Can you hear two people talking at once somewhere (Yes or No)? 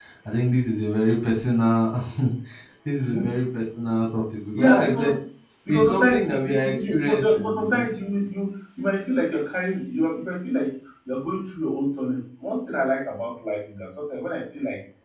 Yes